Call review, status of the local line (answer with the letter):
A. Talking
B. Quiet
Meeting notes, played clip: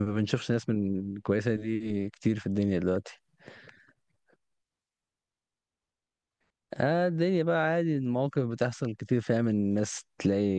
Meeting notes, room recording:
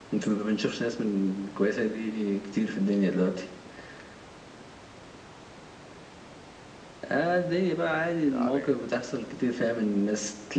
A